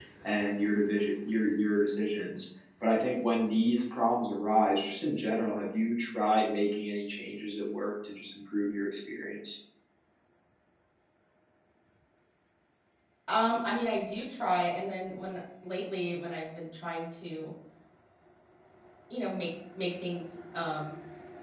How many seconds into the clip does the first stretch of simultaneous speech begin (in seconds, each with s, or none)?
none